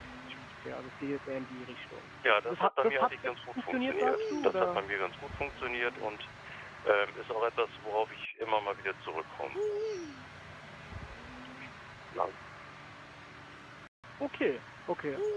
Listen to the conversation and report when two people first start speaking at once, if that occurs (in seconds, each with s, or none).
2.2 s